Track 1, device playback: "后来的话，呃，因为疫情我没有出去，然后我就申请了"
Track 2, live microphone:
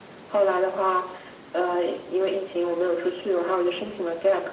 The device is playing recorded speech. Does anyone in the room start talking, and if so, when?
none

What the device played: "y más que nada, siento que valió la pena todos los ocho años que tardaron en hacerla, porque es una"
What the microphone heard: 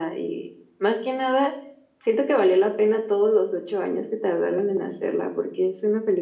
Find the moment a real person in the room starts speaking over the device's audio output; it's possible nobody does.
none

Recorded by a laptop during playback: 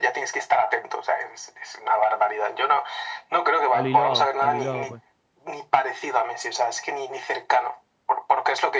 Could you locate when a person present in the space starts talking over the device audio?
3.7 s

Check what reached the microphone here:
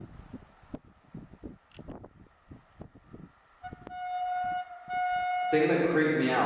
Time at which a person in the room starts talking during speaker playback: 5.5 s

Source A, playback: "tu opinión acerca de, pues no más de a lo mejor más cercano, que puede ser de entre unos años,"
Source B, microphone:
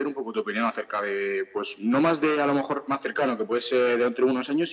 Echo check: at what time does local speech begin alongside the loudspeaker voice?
none

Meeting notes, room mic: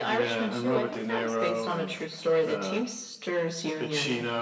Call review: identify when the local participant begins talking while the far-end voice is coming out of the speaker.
none

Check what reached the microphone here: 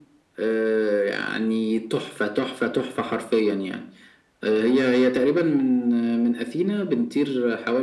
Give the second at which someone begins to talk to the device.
none

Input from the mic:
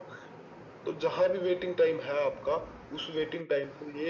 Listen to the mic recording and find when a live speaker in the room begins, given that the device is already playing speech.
none

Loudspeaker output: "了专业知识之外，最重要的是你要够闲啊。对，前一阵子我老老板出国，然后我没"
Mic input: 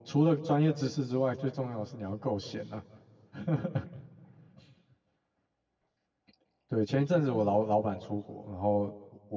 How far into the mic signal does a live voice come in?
none

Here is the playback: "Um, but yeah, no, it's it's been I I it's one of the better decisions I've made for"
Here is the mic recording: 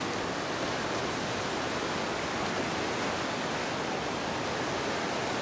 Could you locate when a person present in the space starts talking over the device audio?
none

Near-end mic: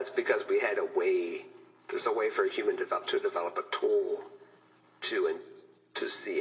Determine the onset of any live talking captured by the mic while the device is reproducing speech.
none

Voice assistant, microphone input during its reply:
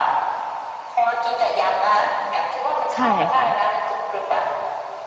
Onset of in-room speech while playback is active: 2.9 s

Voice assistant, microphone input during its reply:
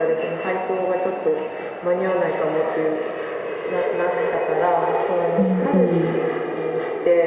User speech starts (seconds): 5.4 s

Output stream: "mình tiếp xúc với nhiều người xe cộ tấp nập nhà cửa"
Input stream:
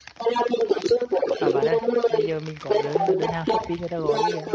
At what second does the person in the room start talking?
1.4 s

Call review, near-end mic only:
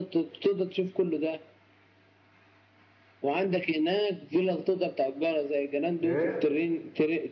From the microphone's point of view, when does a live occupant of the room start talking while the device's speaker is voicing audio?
6.0 s

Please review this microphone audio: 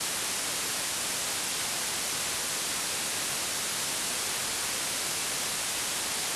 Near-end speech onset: none

